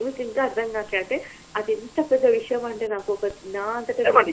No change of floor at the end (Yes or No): No